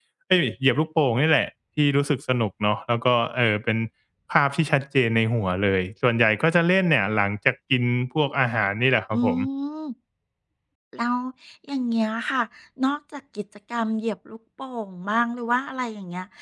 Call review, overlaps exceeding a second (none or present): none